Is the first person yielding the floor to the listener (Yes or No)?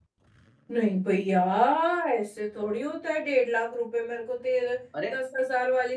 No